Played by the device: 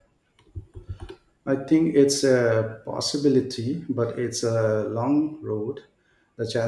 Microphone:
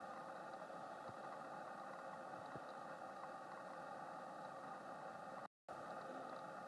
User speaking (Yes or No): No